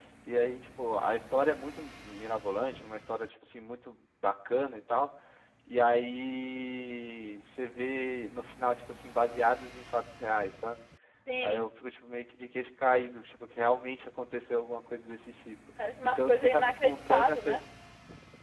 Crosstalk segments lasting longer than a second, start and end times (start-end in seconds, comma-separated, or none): 16.0-17.3